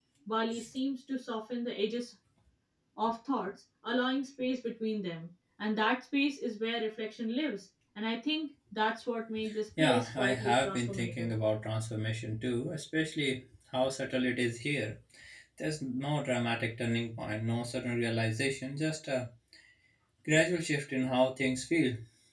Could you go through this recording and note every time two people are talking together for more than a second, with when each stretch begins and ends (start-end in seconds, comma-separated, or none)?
9.8-11.3